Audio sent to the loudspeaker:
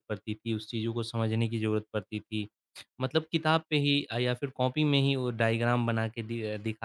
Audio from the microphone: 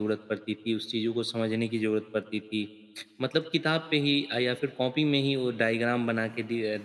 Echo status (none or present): present